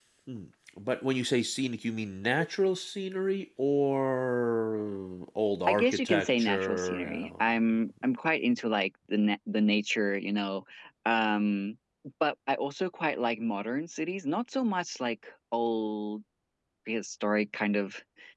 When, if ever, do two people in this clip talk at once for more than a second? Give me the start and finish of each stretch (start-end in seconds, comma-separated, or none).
5.7-7.4